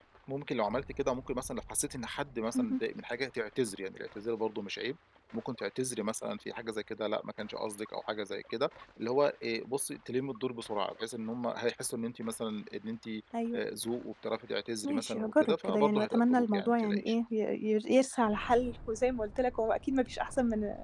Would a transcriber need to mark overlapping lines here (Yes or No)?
Yes